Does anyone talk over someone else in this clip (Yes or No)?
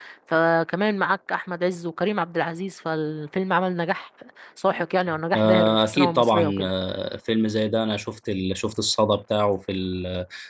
Yes